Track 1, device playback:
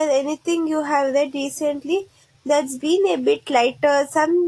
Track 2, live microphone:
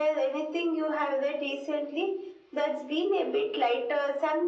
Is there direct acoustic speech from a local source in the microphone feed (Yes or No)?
No